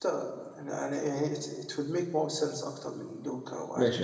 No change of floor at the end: No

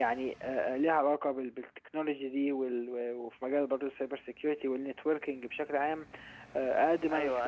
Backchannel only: No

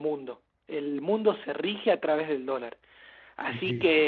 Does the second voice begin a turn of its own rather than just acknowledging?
No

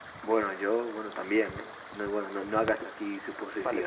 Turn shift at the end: Yes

